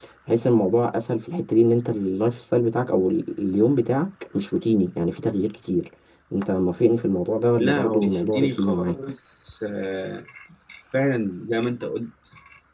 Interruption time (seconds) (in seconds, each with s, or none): 7.6 s